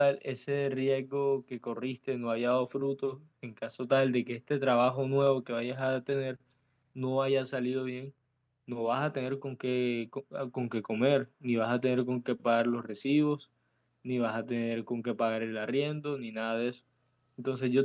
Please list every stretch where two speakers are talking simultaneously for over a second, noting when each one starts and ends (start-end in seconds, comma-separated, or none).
none